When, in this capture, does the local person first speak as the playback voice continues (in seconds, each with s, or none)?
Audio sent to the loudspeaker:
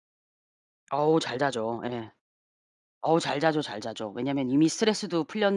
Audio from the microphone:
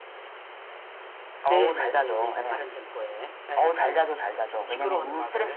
1.5 s